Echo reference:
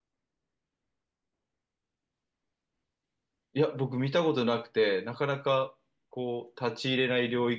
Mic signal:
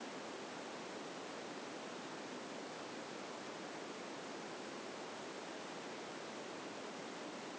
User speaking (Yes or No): No